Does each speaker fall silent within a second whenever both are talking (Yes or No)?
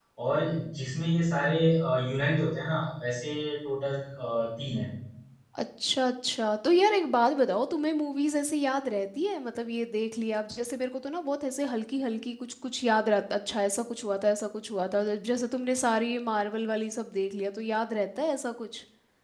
Yes